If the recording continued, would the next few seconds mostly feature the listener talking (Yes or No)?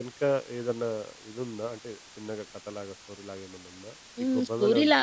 Yes